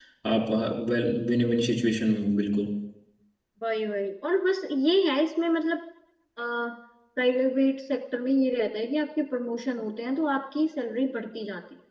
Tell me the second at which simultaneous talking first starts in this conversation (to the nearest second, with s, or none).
none